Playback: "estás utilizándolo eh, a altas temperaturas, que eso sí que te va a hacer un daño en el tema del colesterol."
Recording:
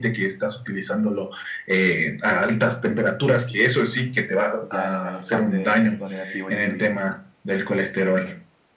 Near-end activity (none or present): present